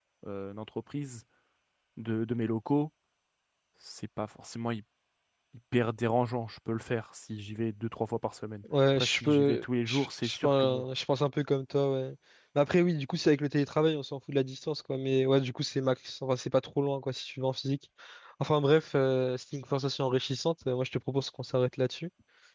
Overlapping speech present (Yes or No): Yes